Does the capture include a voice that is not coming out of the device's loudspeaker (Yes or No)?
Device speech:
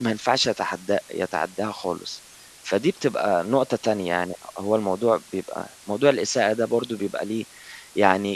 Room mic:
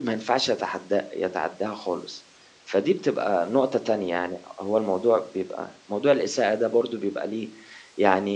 No